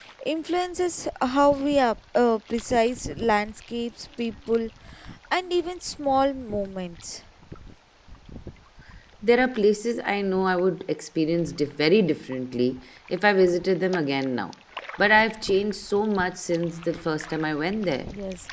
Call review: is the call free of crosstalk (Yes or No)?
Yes